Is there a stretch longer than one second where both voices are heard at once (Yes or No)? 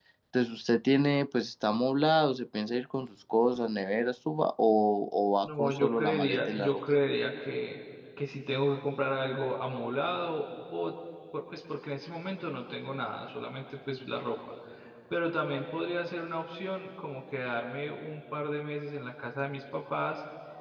Yes